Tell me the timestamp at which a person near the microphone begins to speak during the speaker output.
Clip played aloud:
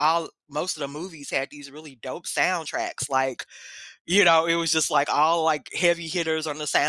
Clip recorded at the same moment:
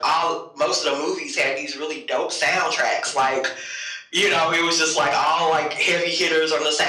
none

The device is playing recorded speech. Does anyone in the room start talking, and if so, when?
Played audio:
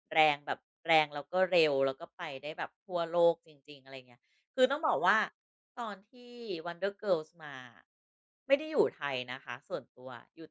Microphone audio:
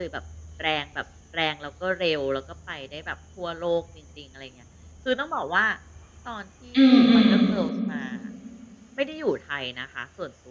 7 s

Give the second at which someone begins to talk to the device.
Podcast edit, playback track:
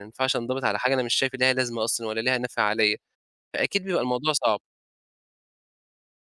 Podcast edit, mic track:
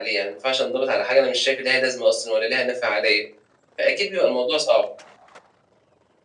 none

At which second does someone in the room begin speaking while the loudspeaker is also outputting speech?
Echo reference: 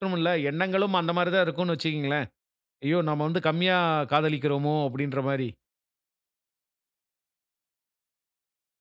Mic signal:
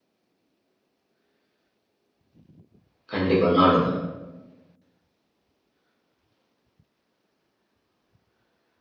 3 s

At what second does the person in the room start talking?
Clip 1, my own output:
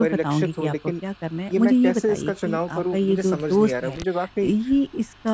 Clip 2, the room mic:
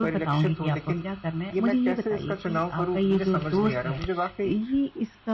none

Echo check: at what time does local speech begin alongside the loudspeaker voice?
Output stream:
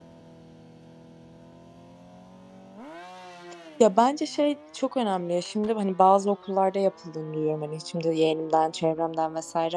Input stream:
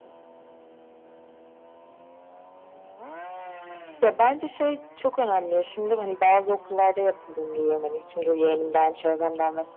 none

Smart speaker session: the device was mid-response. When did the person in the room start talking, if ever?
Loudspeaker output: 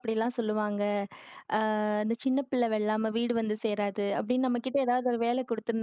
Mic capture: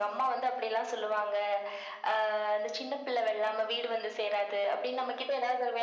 none

